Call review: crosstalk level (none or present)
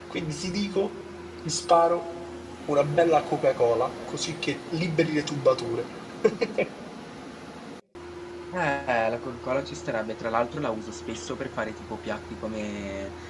none